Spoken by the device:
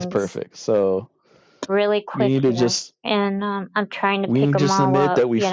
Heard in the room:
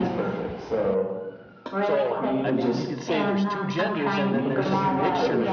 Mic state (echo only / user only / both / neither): both